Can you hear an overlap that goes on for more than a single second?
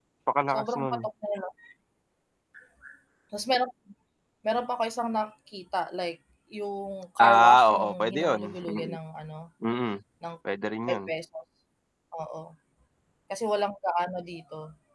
Yes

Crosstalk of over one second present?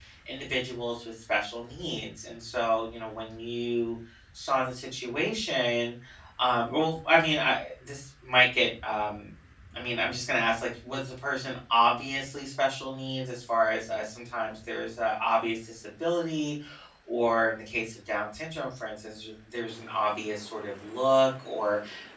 No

